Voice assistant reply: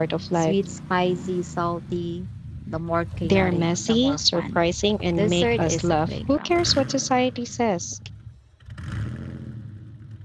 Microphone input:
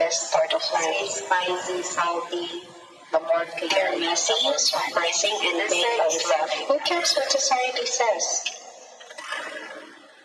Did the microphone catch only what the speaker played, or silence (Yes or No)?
Yes